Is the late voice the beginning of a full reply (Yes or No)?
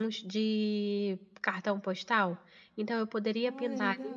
No